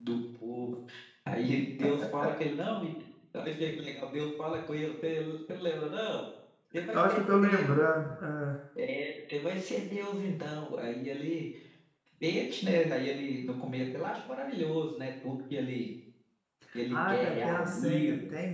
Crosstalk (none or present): present